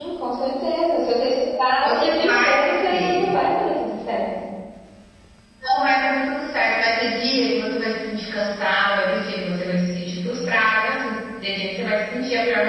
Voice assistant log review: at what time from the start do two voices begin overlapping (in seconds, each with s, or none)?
1.8 s